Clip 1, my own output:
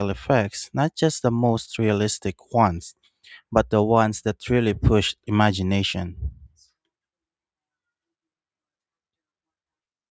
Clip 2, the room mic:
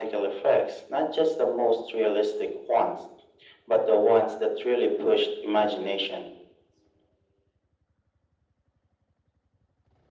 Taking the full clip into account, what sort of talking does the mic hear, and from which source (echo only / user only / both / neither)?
echo only